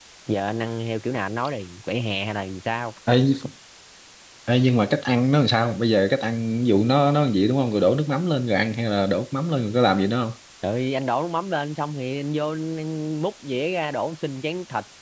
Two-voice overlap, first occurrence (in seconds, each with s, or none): none